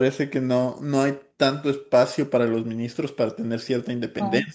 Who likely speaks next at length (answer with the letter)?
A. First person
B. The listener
A